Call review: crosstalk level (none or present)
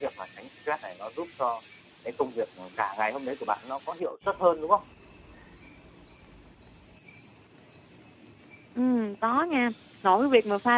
none